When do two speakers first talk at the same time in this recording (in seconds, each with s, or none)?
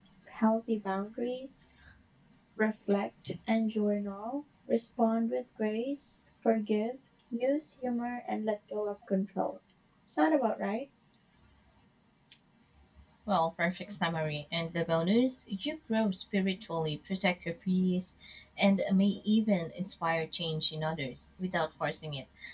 none